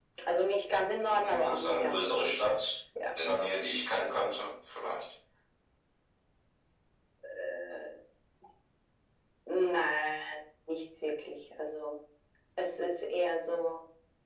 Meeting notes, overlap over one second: present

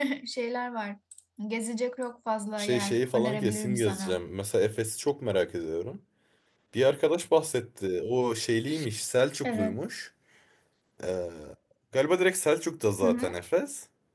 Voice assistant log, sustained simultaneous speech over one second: present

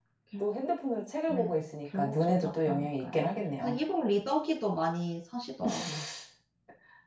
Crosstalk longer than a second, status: present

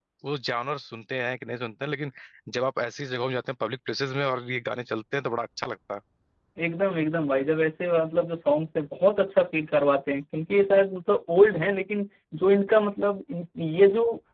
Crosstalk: none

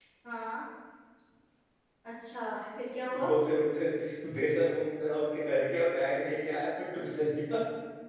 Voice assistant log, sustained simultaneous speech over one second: none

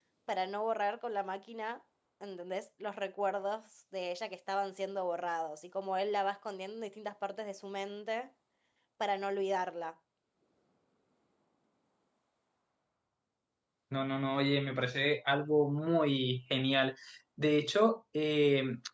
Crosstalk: none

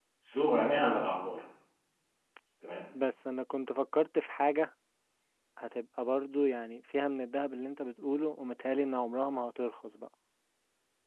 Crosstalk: none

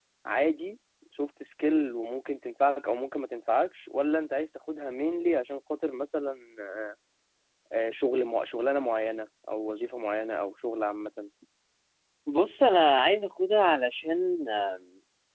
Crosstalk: none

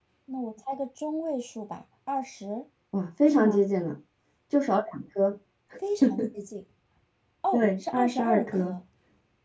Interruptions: present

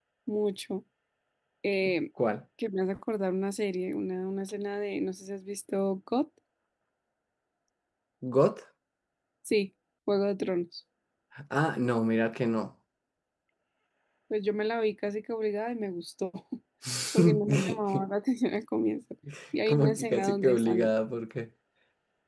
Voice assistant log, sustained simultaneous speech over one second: present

